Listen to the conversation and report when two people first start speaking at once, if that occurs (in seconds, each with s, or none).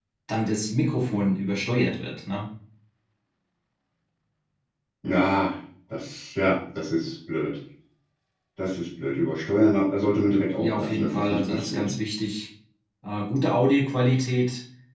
10.6 s